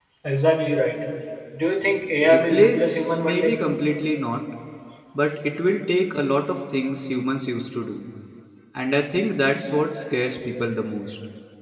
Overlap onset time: 2.3 s

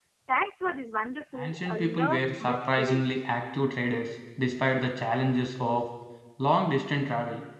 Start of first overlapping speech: 1.4 s

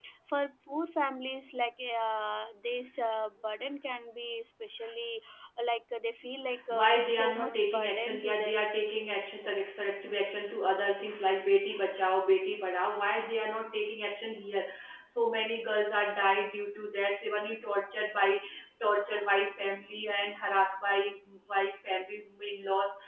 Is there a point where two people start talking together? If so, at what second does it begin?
6.5 s

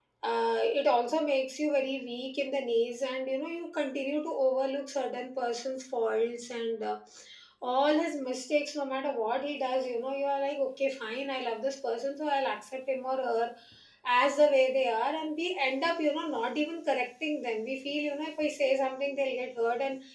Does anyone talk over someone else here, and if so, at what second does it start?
none

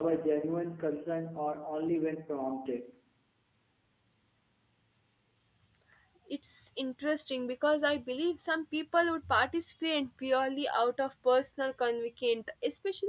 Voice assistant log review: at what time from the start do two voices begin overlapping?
none

